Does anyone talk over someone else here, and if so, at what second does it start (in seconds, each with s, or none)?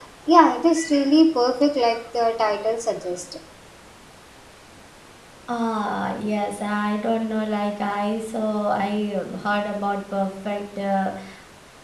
none